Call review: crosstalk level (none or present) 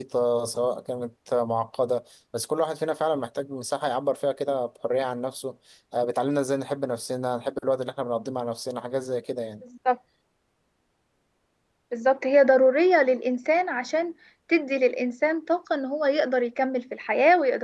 none